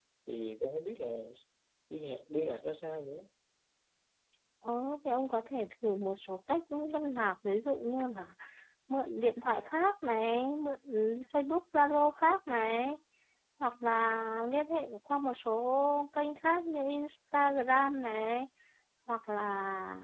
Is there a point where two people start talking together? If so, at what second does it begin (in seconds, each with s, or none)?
none